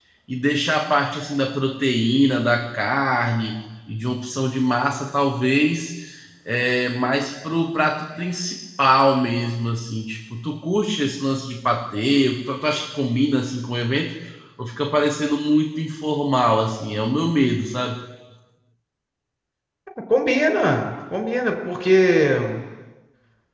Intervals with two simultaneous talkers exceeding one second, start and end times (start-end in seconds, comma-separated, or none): none